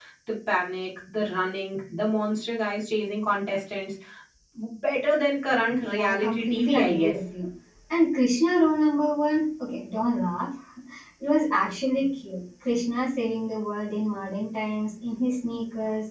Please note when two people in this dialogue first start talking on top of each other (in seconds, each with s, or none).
5.8 s